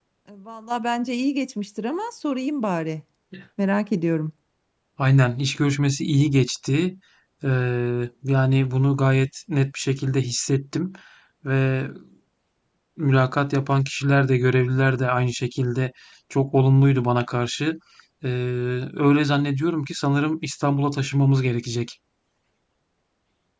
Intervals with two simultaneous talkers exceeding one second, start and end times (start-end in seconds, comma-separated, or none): none